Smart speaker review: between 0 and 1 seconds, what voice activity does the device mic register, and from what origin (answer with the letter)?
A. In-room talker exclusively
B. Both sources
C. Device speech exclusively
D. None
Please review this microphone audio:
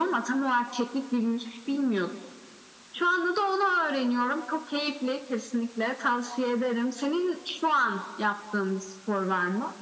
C